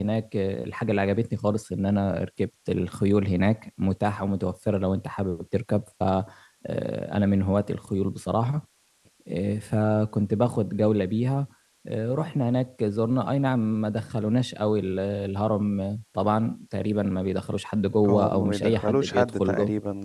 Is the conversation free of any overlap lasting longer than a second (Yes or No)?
No